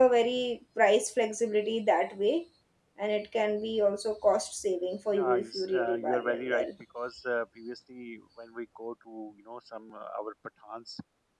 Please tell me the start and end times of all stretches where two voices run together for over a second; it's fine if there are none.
5.1-6.7

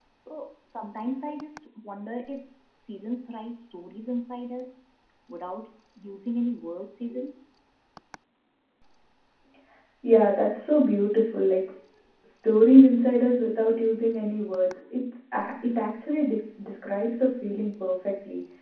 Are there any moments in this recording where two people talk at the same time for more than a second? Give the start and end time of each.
none

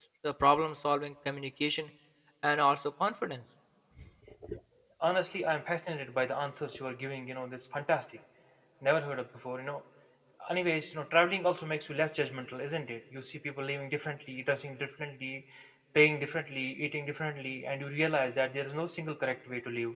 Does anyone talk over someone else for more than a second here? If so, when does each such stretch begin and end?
none

